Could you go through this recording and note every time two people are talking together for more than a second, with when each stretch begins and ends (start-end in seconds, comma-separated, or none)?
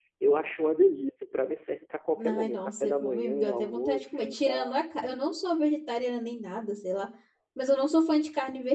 2.3-4.8